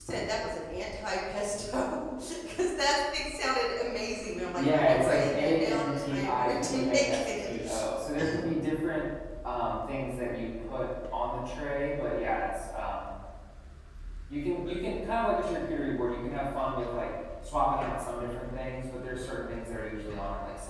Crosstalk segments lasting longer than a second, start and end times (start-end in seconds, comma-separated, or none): 4.6-7.8